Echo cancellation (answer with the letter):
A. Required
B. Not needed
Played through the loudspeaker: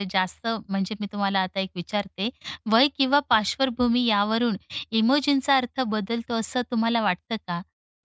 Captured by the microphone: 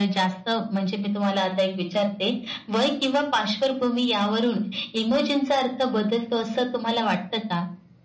A